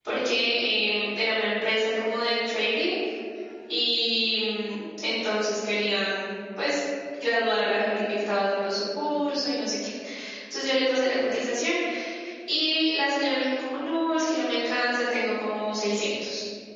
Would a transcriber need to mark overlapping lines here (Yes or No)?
No